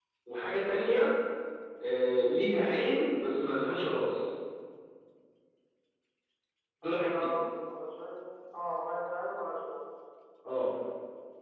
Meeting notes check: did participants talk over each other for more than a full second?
No

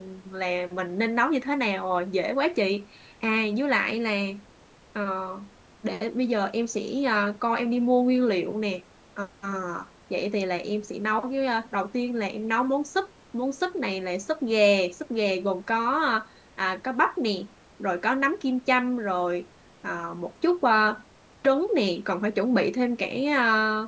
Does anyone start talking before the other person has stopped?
No

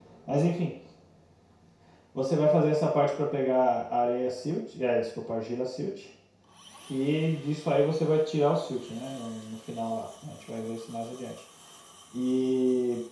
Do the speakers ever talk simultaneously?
No

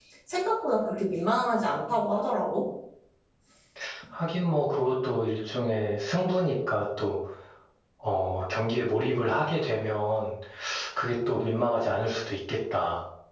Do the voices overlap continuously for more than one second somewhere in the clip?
No

